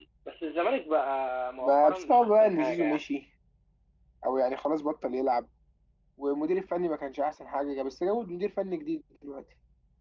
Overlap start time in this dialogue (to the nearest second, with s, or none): 2 s